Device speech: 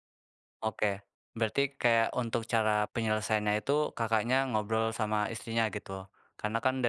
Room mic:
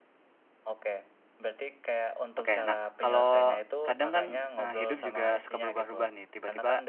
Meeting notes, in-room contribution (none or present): present